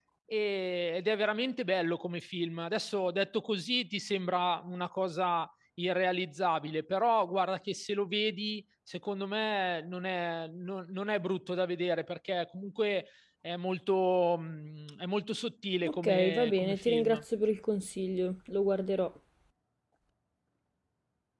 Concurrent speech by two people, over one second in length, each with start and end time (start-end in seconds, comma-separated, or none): 15.9-17.2